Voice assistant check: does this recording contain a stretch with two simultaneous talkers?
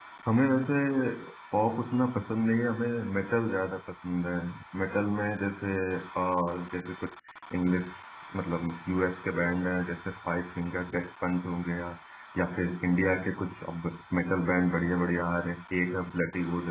No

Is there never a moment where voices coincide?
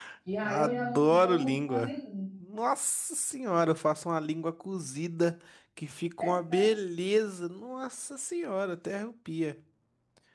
No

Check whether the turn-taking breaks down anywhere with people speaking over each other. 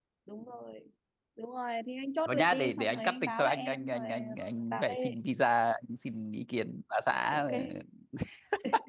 Yes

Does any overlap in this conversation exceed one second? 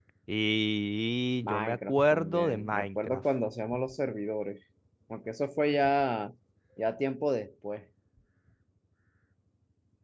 Yes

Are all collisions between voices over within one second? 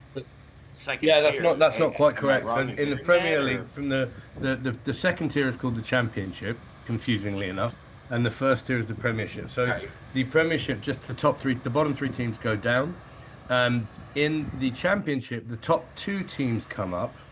No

